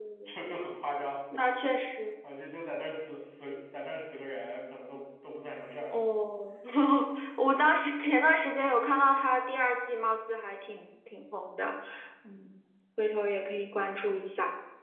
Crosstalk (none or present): none